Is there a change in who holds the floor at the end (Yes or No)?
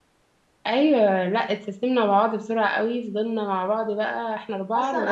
Yes